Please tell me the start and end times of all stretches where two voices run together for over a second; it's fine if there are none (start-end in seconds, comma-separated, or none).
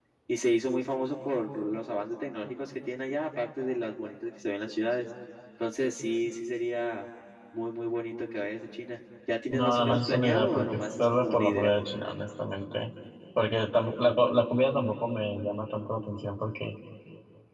9.5-11.7